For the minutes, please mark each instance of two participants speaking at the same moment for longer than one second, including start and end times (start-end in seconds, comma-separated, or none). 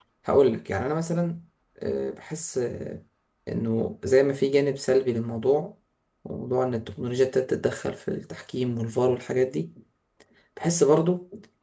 none